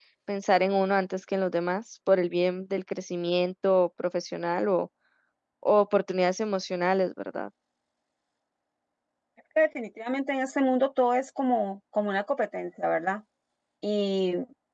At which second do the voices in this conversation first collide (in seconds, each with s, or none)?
none